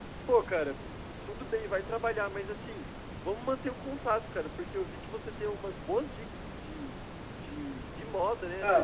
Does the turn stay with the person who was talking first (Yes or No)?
Yes